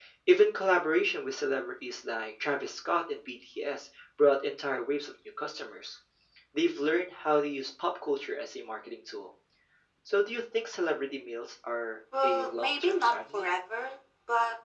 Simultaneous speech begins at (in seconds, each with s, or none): 12.1 s